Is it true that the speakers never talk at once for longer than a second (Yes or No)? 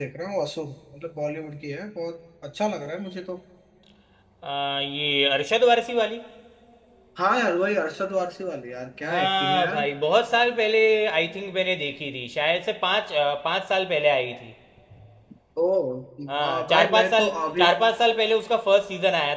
No